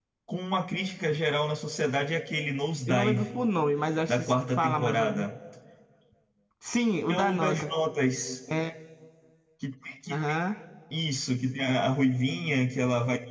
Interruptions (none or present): present